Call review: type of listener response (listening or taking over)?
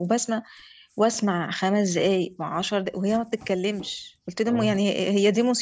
listening